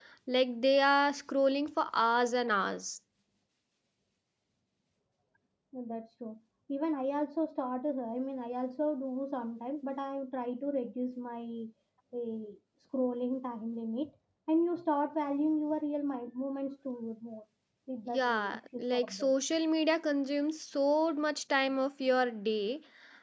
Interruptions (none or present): present